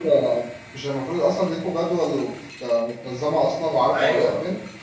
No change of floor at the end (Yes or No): No